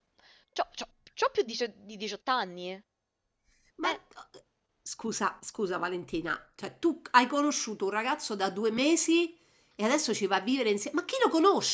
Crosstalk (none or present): none